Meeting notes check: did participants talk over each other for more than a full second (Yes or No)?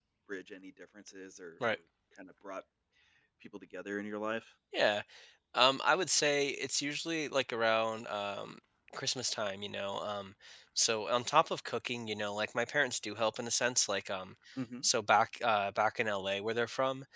No